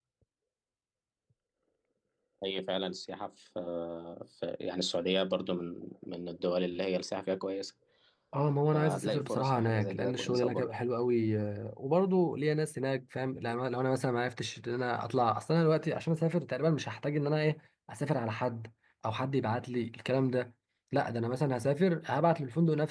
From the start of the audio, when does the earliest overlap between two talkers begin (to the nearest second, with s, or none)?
9 s